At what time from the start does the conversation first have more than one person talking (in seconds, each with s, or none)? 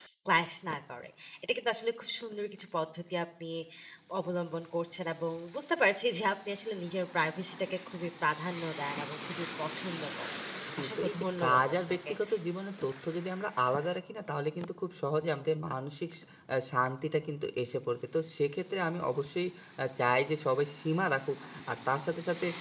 10.8 s